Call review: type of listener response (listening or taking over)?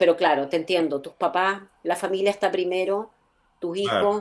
listening